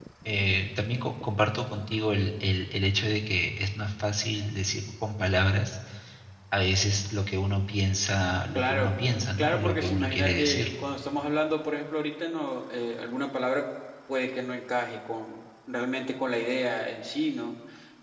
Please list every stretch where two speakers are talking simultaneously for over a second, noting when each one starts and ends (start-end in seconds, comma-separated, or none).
9.4-10.7